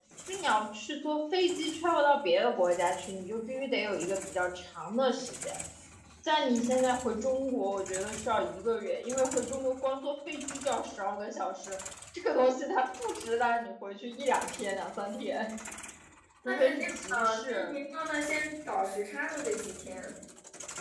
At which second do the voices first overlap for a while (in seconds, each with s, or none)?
16.4 s